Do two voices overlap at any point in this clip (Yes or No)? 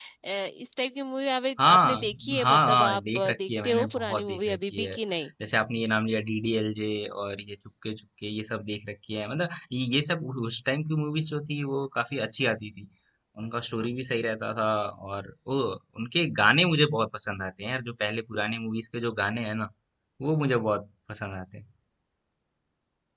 Yes